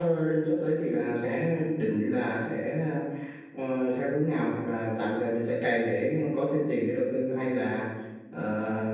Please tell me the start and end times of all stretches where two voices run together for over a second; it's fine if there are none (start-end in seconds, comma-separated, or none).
none